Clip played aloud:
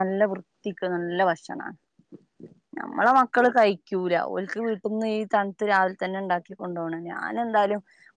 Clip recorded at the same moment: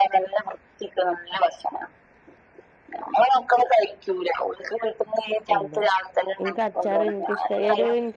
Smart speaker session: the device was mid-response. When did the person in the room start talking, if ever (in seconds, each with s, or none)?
5.6 s